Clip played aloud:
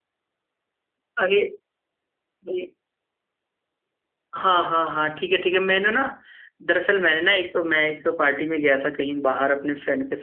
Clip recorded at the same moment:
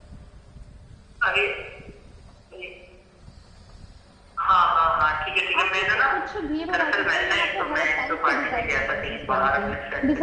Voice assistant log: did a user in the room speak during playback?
Yes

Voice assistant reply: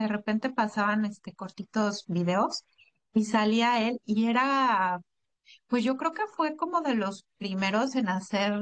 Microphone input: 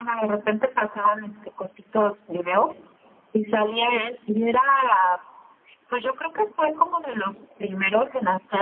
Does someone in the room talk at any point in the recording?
No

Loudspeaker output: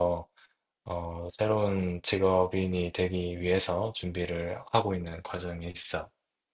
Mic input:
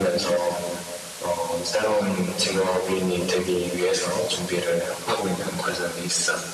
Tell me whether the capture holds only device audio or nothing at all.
Yes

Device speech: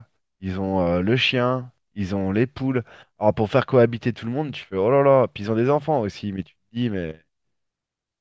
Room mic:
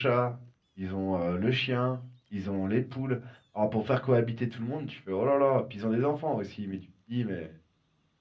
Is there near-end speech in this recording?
No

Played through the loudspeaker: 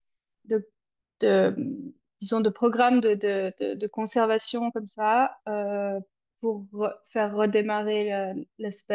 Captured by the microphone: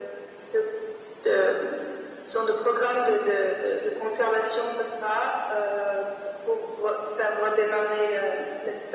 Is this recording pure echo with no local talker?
Yes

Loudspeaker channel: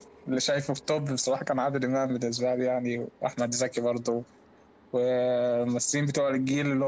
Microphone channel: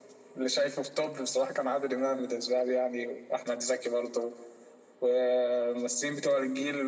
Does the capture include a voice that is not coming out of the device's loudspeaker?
No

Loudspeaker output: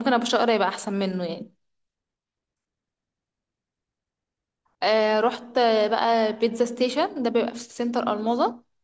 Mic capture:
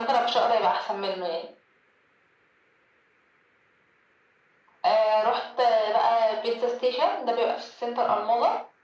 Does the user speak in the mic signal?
No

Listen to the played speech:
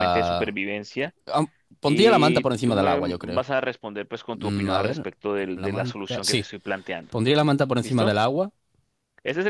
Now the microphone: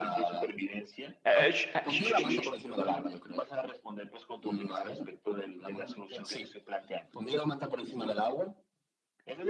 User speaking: Yes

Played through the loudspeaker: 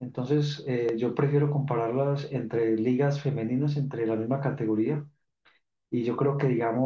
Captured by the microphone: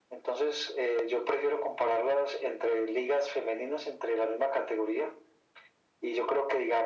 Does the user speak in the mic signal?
No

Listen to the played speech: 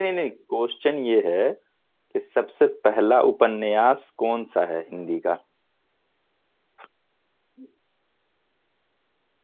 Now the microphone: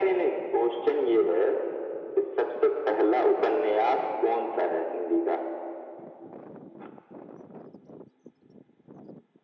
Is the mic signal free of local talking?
Yes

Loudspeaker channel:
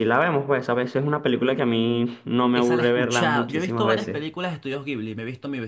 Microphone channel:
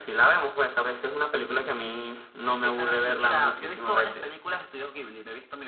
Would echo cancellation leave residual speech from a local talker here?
No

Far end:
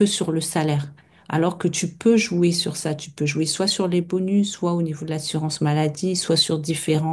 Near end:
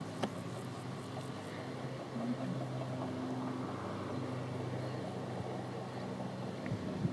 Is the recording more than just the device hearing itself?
No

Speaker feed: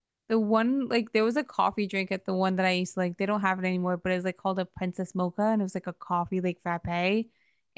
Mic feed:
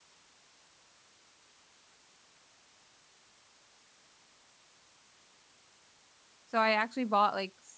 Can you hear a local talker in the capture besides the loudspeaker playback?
Yes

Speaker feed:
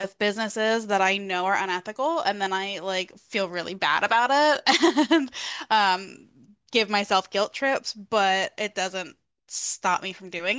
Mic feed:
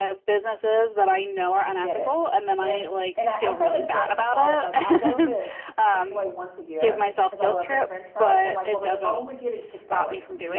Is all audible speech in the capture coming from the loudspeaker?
No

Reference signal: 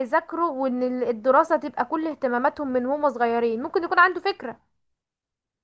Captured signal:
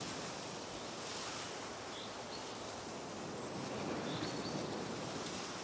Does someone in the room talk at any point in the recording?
No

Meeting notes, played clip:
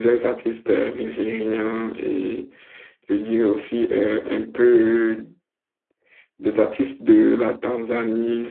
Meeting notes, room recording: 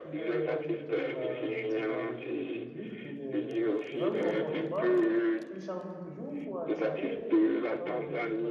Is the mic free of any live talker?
No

